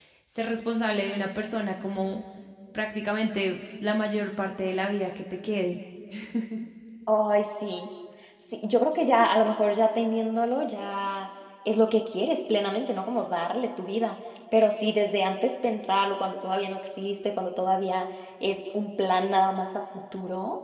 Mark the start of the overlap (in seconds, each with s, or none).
none